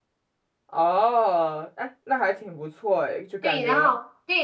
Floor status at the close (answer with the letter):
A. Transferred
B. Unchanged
A